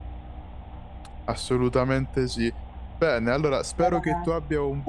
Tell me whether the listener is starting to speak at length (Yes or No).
No